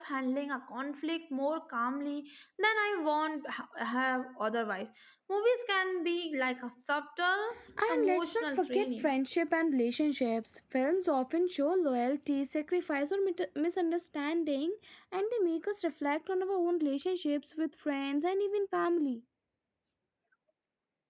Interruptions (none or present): present